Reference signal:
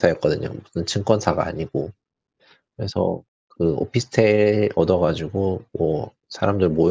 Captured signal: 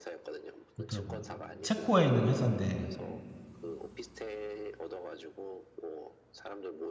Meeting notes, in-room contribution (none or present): present